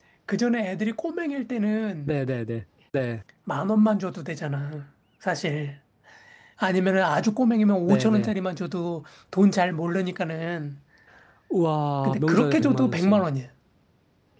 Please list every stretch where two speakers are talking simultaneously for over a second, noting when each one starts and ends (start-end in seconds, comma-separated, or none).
12.0-13.2